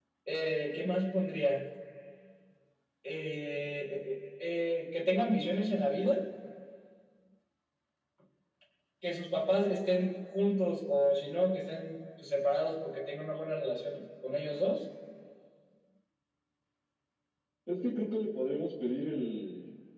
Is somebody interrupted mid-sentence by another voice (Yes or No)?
No